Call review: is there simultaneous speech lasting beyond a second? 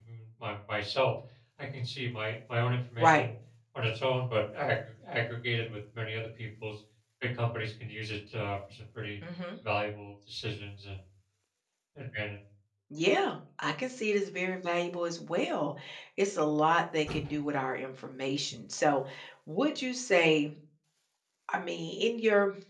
No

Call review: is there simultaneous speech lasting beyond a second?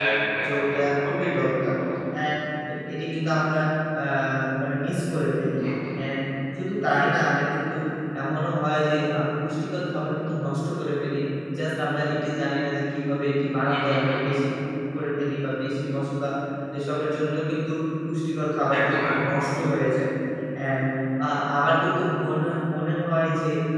Yes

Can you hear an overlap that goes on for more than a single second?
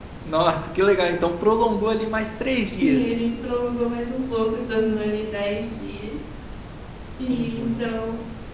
No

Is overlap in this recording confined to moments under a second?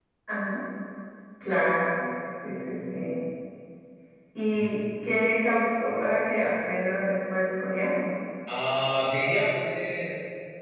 Yes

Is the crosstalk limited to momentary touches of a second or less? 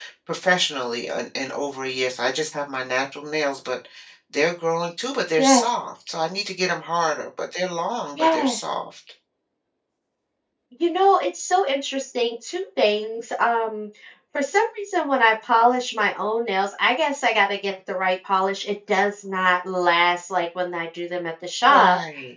Yes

